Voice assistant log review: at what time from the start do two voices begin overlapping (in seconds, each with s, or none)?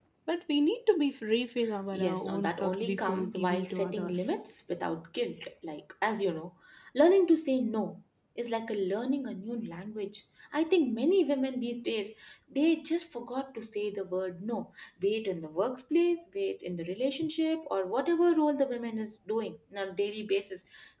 1.9 s